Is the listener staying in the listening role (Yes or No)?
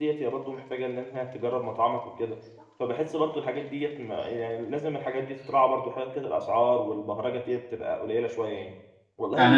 No